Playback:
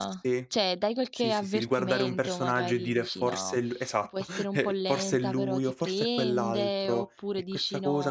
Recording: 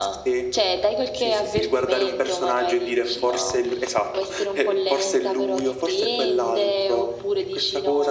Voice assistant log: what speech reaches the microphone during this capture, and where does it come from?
echo only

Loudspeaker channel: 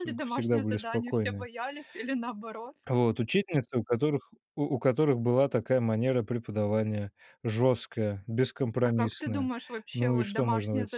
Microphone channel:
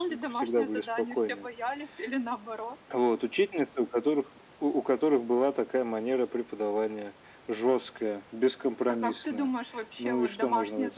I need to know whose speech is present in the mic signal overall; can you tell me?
echo only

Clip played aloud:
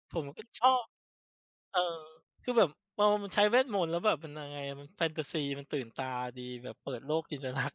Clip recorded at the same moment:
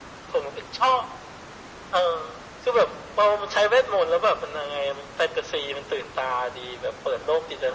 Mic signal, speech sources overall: echo only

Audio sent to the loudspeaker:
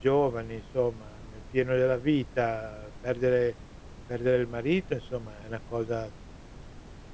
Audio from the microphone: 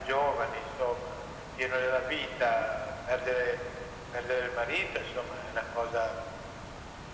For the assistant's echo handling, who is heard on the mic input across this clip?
echo only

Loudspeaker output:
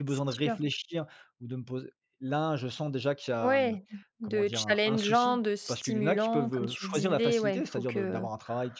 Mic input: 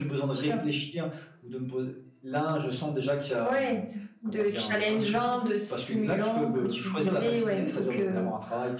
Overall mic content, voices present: echo only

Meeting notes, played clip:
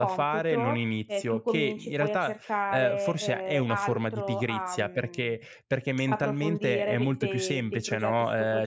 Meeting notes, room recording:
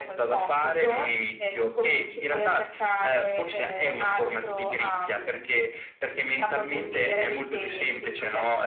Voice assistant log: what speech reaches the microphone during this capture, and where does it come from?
echo only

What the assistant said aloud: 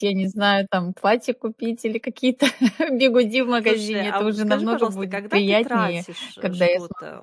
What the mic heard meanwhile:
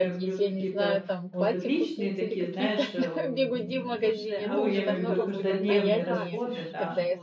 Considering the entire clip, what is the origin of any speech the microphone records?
both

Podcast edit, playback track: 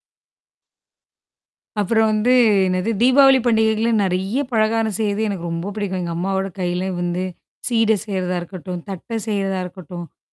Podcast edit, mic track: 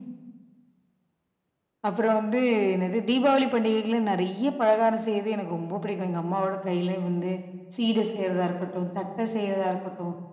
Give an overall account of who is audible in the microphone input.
echo only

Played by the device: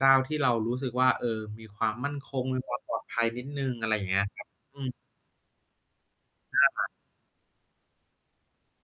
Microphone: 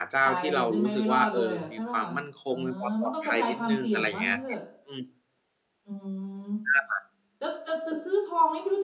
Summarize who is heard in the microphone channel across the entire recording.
both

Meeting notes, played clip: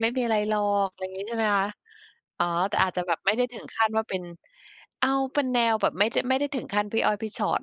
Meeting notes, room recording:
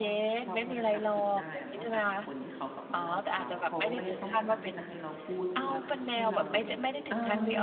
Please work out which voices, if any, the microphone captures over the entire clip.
both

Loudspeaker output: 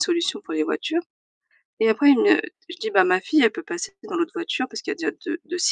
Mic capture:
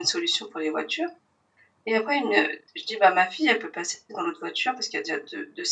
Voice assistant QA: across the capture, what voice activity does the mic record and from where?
echo only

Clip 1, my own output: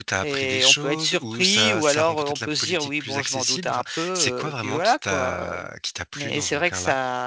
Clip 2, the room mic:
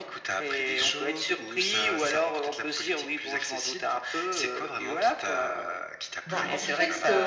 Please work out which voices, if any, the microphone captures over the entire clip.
both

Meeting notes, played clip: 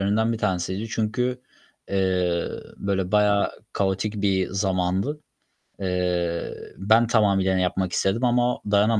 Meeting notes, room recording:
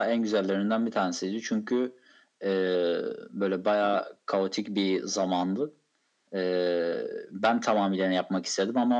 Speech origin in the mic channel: echo only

